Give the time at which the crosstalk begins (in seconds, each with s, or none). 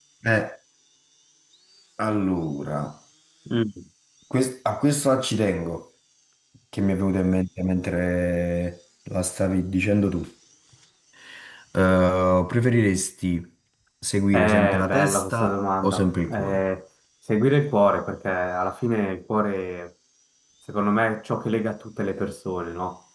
14.3 s